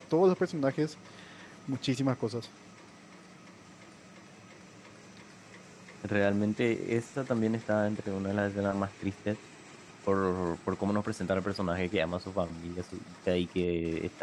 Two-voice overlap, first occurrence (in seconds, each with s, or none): none